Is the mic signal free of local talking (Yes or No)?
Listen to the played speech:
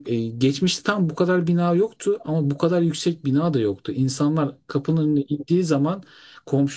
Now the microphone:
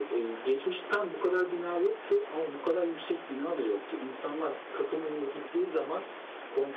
Yes